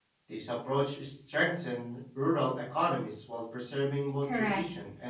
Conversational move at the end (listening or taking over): taking over